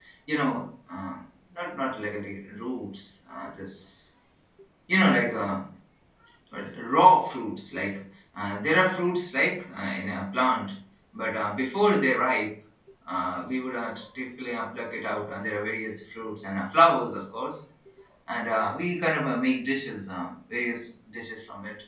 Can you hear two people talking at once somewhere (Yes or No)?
No